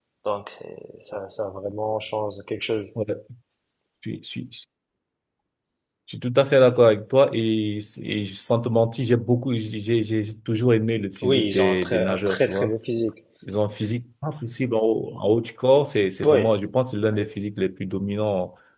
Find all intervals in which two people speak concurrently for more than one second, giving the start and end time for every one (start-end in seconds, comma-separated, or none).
11.2-12.7